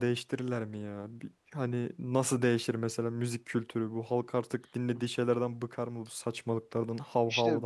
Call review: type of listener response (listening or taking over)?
taking over